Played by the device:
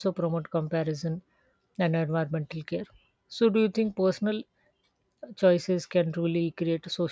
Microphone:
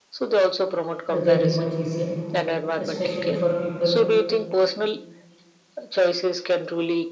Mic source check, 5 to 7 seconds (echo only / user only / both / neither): echo only